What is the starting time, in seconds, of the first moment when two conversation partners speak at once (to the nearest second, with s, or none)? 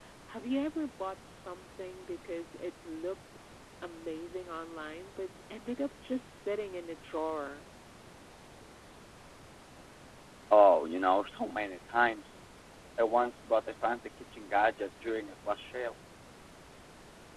none